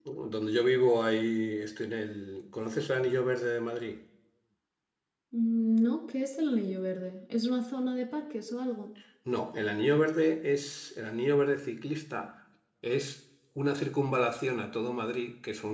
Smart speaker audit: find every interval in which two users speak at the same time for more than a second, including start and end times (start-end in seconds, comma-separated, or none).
none